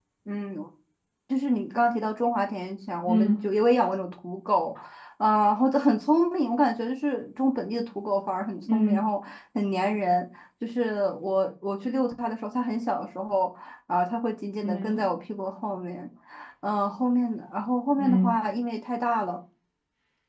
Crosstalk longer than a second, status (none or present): none